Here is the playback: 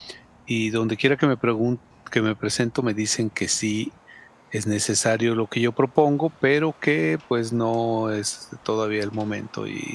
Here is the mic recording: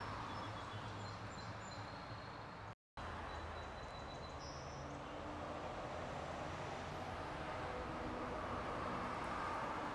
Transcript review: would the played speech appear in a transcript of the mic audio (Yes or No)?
No